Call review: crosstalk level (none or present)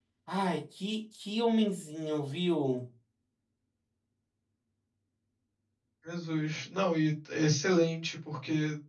none